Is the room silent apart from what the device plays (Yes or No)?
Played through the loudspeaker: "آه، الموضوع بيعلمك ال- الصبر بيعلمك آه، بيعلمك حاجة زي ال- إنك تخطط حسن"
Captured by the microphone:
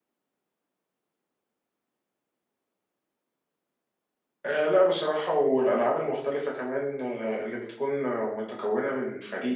No